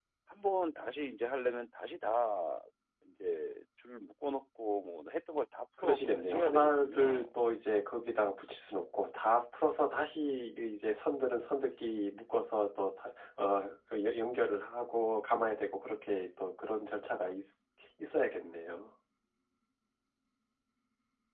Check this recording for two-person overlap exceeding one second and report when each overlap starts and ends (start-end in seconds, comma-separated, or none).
5.8-7.2